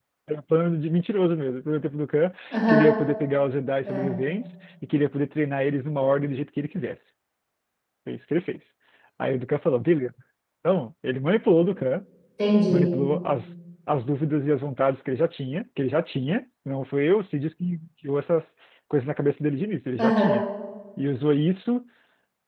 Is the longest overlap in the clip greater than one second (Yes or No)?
No